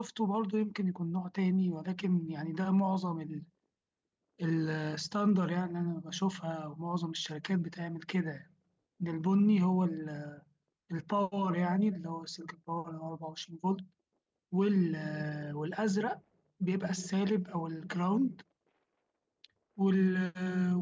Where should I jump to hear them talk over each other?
none

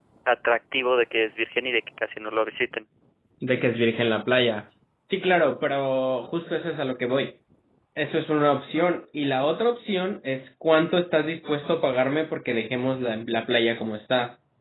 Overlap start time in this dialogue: none

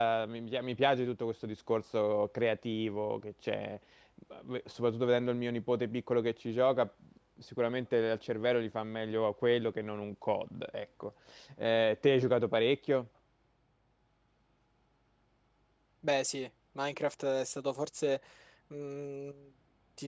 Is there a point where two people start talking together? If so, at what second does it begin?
none

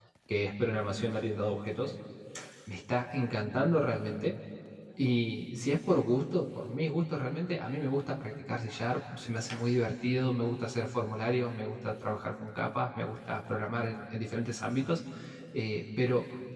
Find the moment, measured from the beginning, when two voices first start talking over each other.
none

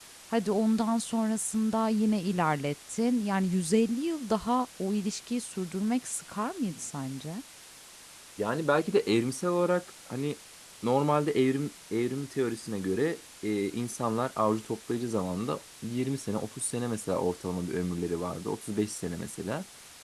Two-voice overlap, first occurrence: none

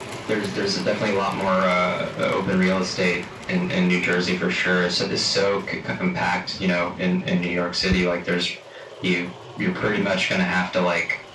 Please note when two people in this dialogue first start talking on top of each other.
none

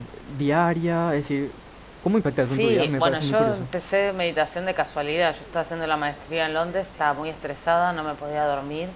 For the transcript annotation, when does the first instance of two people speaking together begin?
2 s

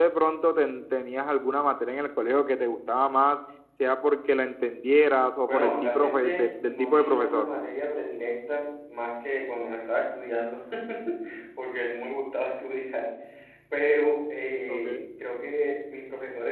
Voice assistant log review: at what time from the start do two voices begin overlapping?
5 s

